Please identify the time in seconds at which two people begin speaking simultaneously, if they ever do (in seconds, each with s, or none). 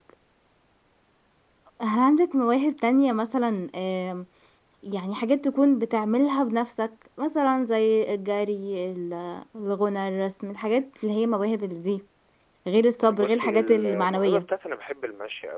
13.1 s